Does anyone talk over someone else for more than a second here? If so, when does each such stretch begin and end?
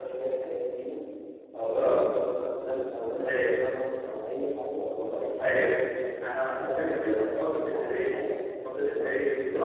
6.2-8.2

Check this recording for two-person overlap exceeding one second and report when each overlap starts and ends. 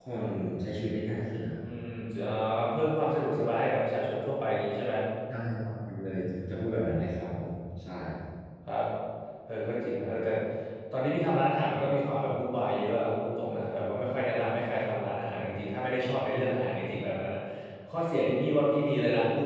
none

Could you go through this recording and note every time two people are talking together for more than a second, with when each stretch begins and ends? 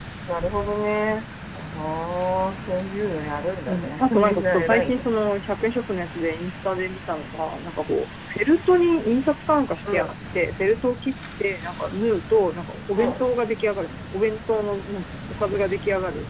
3.7-5.0

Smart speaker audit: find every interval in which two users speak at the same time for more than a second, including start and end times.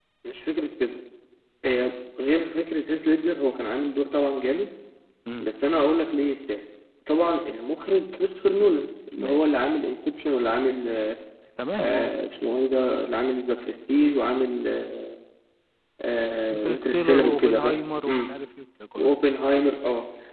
16.5-17.8

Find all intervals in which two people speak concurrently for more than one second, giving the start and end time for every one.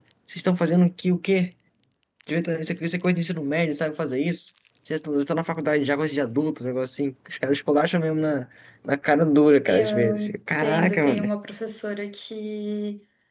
9.7-11.3

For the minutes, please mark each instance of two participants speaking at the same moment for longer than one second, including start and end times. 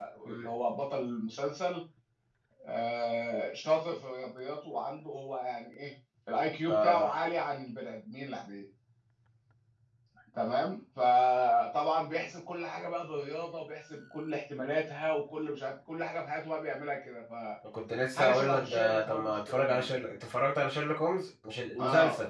18.3-19.9

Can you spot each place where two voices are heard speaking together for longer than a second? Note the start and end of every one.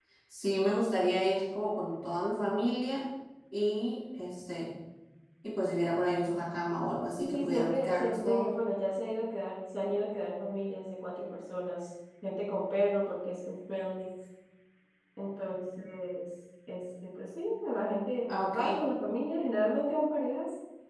7.2-8.4

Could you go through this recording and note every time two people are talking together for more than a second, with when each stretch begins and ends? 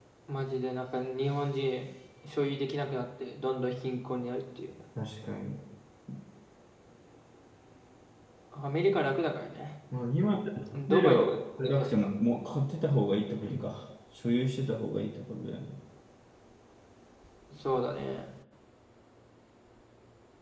10.9-12.1

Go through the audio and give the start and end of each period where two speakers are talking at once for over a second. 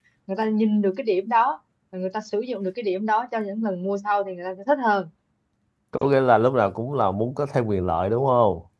none

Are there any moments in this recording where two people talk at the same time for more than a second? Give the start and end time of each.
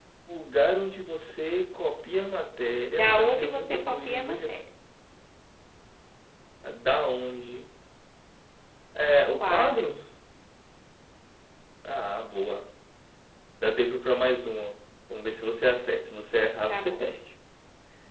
3.0-4.4

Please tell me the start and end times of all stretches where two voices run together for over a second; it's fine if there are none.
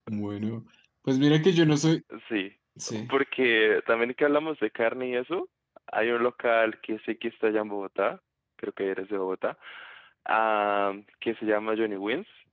none

